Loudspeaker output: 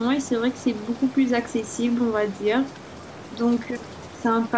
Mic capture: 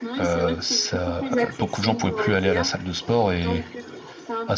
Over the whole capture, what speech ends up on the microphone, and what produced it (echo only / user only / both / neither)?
both